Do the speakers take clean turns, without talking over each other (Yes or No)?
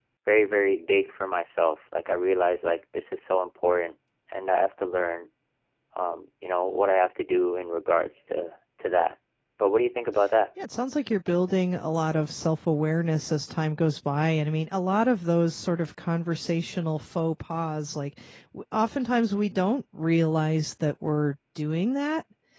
Yes